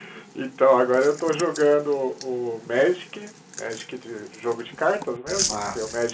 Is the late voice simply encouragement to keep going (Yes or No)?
Yes